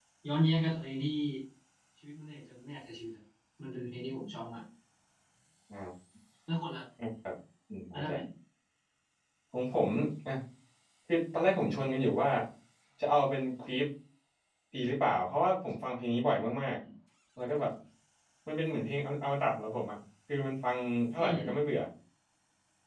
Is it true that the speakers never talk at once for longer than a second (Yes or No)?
Yes